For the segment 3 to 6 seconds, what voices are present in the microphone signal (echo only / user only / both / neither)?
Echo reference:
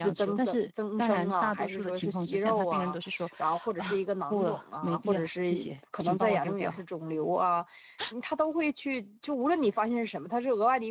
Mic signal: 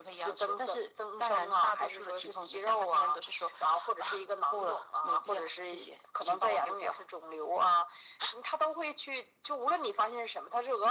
echo only